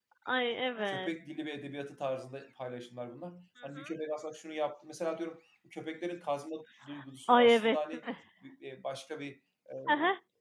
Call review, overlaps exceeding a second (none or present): none